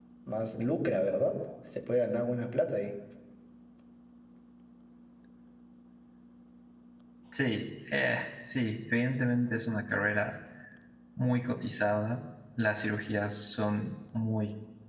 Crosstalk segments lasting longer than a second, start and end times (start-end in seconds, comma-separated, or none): none